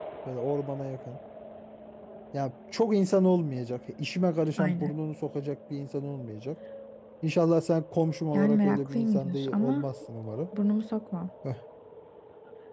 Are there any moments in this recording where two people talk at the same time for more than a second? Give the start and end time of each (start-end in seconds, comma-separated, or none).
8.3-9.9